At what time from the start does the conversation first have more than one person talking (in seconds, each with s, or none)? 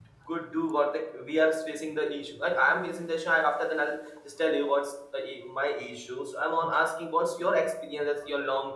none